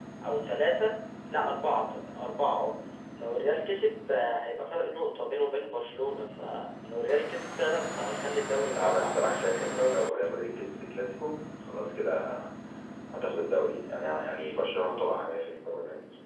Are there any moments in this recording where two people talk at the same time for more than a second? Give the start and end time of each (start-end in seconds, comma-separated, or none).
8.7-10.3